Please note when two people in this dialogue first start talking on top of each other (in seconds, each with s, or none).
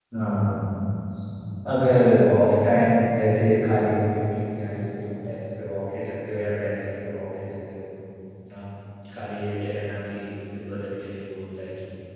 none